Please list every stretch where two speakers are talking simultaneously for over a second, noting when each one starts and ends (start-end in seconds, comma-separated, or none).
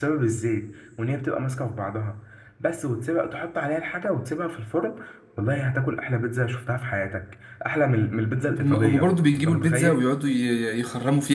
8.6-10.1